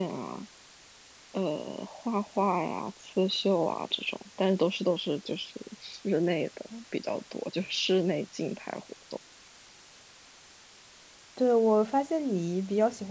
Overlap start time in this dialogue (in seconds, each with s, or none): none